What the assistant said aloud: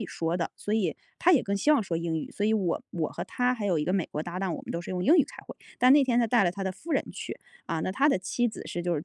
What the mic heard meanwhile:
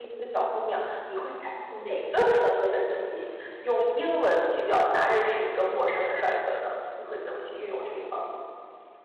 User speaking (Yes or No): Yes